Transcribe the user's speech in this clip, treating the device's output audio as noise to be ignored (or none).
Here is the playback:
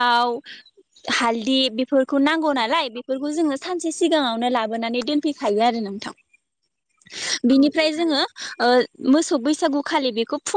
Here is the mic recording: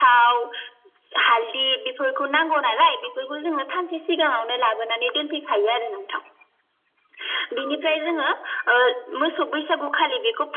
none